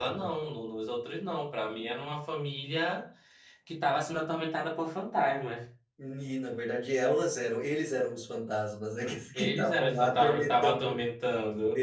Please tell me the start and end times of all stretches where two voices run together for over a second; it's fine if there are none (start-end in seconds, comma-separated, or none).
9.3-10.8